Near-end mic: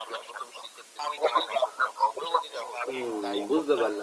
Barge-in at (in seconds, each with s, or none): 2.9 s